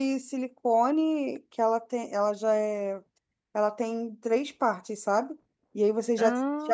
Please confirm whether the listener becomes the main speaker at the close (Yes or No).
No